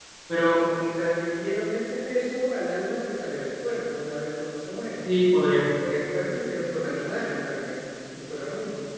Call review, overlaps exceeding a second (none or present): none